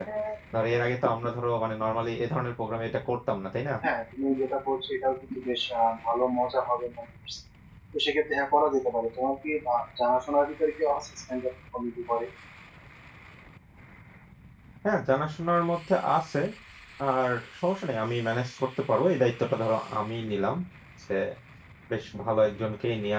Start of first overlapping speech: none

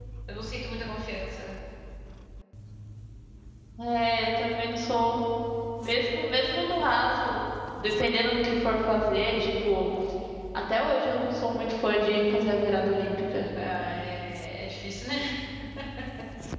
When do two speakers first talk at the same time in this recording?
none

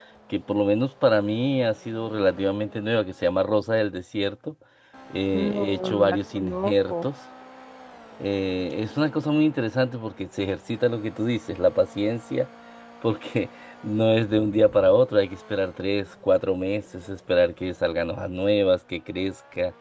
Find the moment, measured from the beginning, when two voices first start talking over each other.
5 s

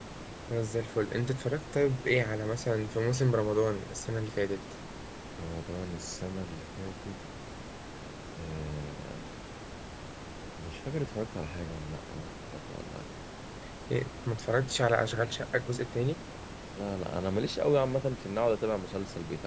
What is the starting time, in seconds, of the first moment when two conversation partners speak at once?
none

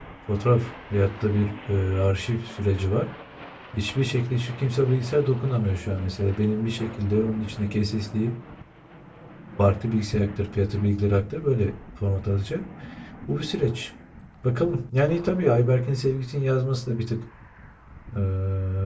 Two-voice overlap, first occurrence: none

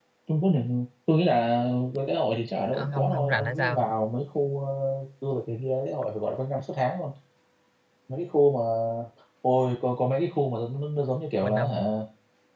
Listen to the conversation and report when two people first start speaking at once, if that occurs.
3 s

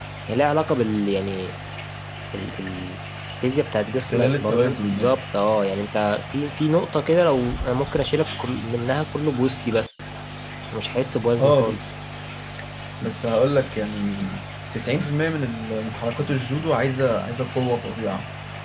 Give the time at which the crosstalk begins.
4 s

